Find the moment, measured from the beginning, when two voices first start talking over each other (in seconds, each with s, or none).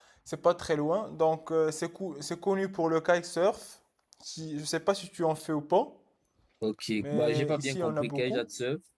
7.0 s